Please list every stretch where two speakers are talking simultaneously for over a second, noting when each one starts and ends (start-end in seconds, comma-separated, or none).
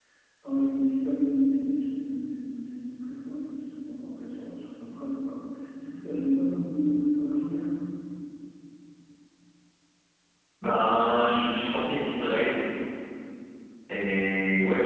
none